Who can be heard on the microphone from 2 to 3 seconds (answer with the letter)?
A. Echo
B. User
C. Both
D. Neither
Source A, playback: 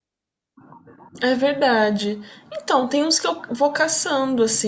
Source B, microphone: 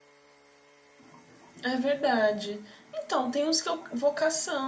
A